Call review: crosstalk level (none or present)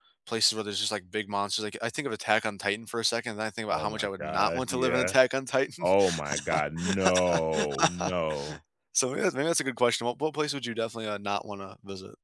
present